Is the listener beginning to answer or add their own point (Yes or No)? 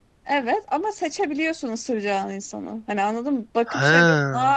No